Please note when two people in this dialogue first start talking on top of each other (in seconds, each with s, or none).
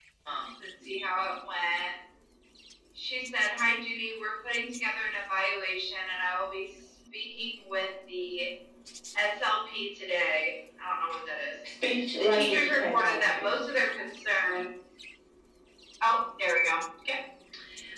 12.2 s